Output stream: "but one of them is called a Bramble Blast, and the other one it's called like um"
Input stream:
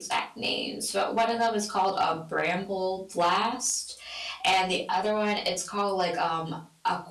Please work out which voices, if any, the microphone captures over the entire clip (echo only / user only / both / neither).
echo only